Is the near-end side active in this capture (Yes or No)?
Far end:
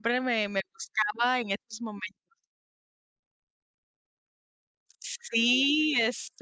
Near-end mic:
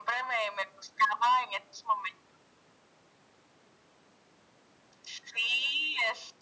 No